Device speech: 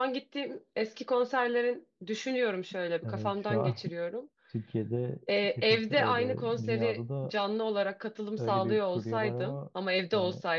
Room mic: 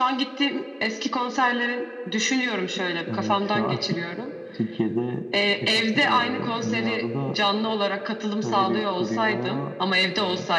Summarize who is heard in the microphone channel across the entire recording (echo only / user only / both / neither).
echo only